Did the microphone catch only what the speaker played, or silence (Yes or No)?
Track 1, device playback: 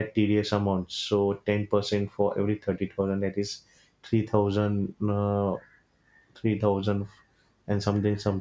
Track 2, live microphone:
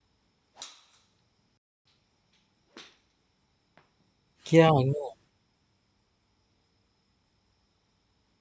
No